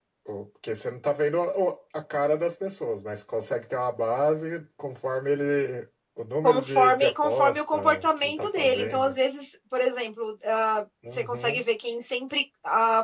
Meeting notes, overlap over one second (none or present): present